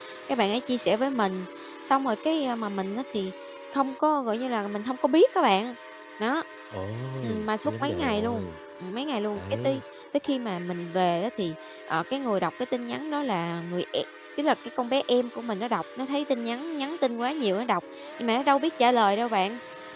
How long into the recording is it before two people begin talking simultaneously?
7.2 s

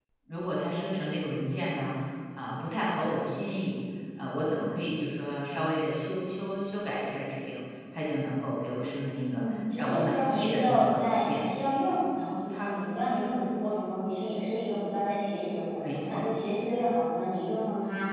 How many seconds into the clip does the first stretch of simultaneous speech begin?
9.3 s

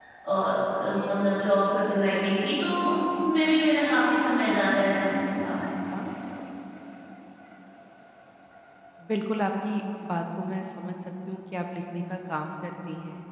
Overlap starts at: none

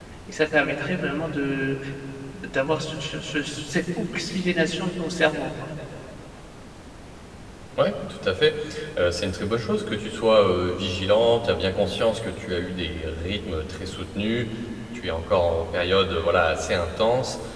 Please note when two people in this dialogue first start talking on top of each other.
none

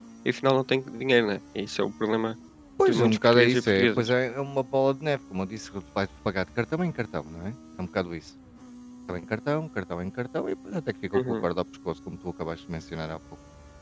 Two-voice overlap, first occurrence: 2.9 s

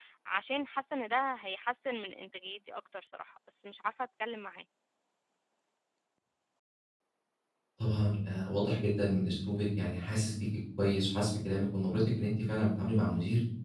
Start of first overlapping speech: none

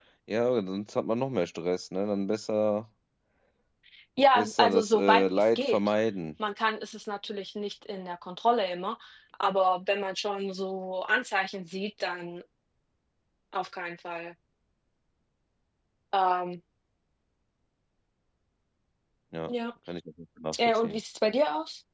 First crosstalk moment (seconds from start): 4.3 s

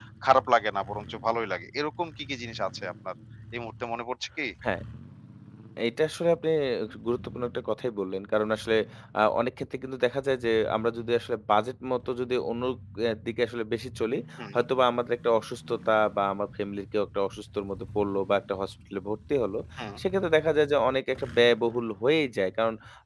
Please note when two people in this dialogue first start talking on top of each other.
none

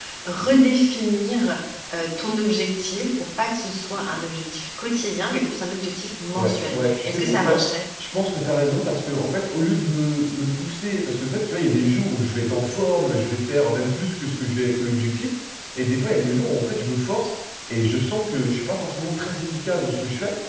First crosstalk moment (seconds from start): 6.3 s

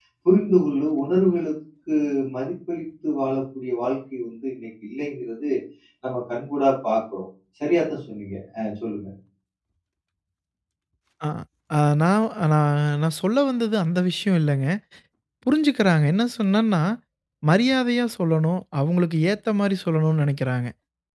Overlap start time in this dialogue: none

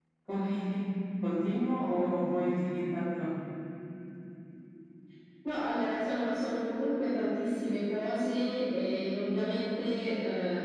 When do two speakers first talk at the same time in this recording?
none

